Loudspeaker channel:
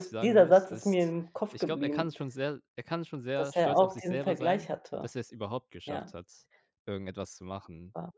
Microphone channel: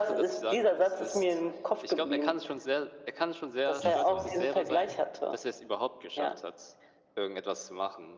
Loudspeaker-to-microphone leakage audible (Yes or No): Yes